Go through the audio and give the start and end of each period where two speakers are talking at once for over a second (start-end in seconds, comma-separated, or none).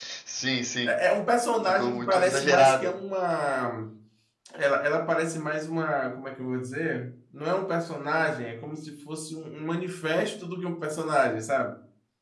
1.6-2.9